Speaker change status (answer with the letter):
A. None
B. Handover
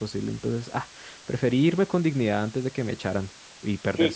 B